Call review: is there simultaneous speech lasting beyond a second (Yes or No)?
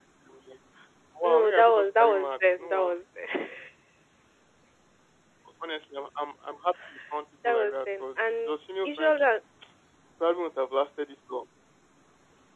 Yes